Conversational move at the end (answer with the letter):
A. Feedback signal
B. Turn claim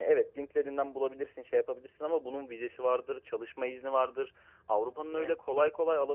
A